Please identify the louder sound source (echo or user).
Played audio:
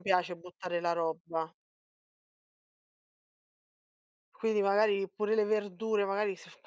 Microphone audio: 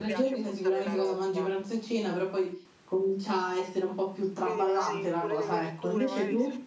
user